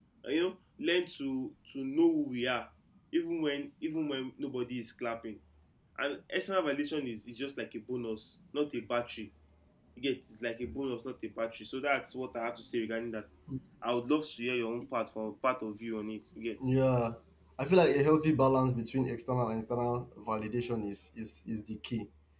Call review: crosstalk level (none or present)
none